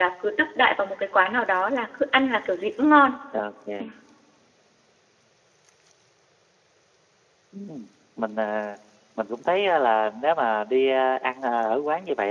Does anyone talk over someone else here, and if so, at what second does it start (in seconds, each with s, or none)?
none